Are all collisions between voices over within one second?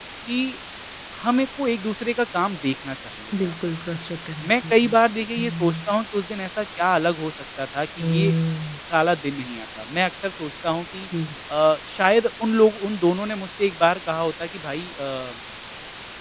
Yes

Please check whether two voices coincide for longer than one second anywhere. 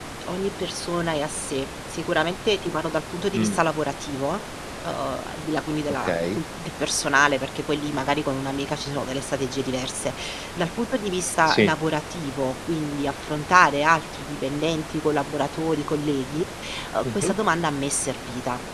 No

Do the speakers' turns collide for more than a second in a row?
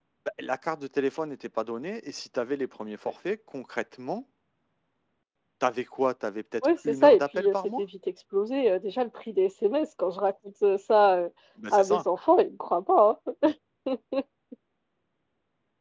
Yes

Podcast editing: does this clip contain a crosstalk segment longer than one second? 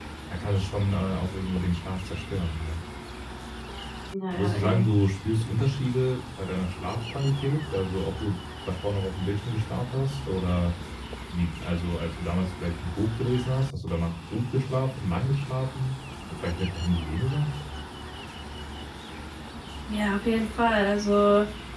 No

